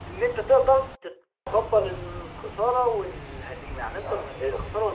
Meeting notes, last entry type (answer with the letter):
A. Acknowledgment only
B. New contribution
A